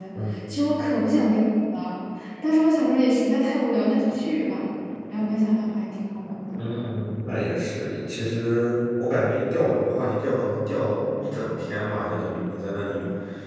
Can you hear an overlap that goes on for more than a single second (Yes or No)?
No